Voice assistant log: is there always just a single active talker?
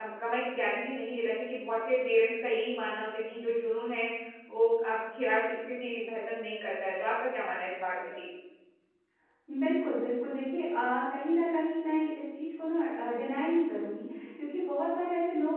Yes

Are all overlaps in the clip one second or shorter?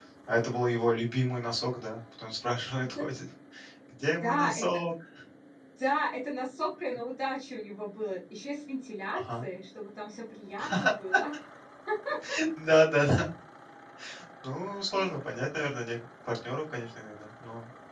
Yes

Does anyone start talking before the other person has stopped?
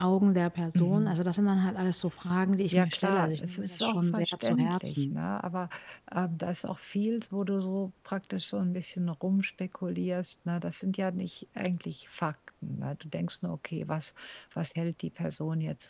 Yes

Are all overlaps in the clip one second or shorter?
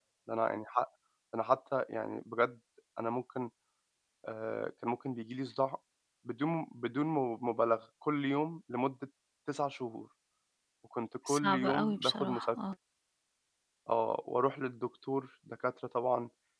No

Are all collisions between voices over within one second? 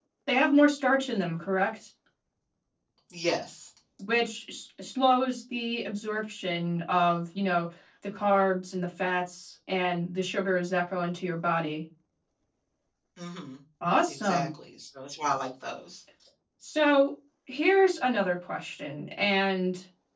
Yes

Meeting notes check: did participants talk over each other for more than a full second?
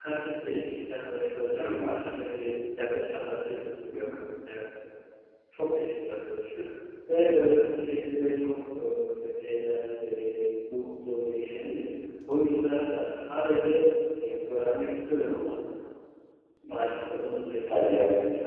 No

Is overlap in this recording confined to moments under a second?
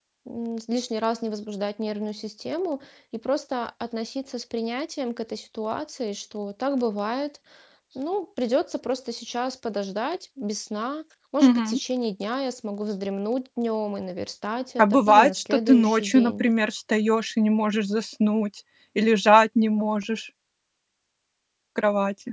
No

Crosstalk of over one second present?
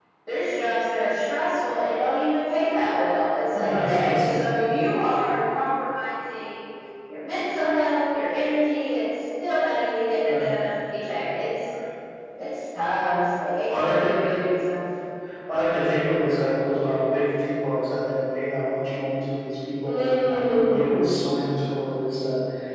Yes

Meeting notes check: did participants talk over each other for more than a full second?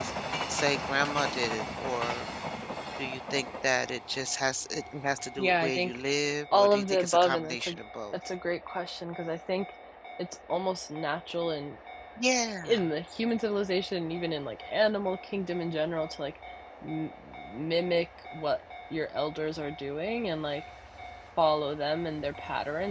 Yes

